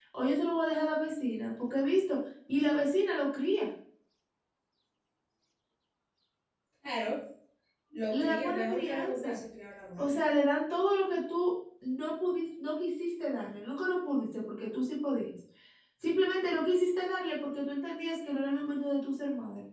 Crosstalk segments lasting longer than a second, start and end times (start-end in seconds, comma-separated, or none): 8.1-9.4